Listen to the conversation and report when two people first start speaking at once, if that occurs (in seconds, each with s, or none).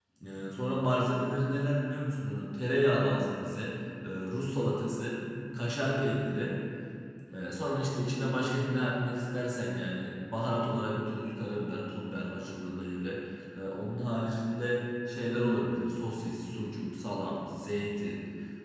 none